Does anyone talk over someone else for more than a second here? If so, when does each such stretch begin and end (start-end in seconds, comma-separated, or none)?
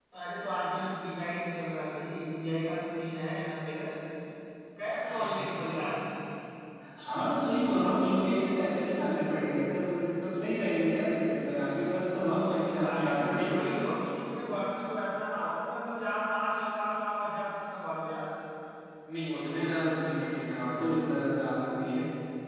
12.5-13.7